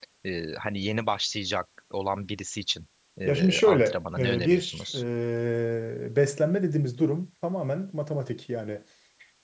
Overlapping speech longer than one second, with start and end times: 3.2-4.9

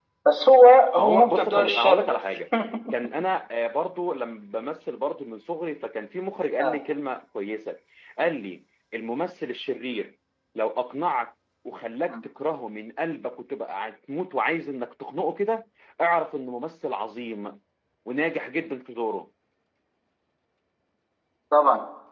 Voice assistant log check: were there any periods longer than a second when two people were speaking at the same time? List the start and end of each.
1.0-2.2

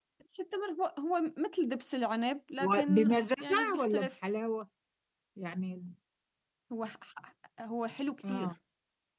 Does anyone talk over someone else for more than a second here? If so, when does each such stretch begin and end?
2.6-4.1

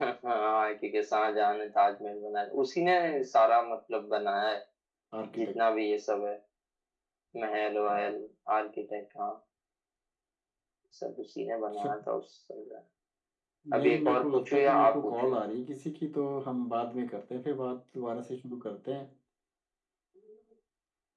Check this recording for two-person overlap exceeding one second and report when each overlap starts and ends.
13.8-15.4

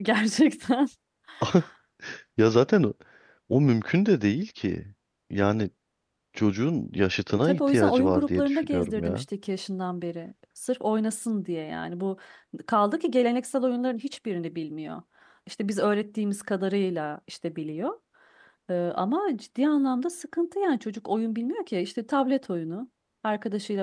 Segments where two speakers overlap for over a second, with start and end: 7.4-9.2

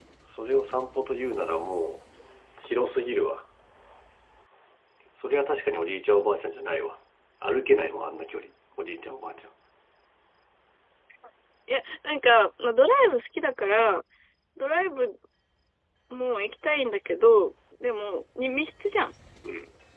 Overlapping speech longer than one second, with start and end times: none

